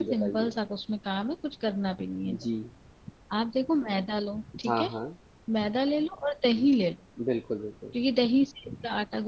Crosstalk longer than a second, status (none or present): none